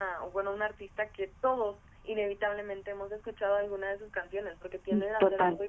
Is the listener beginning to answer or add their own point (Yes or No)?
No